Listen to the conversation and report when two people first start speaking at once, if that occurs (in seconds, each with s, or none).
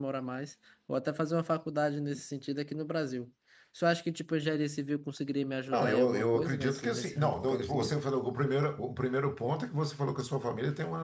5.7 s